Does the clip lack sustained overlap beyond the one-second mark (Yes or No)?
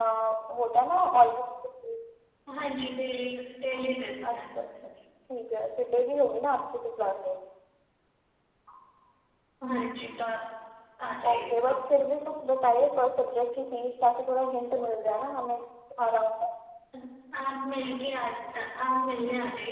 Yes